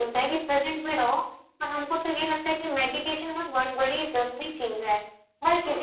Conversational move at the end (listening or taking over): taking over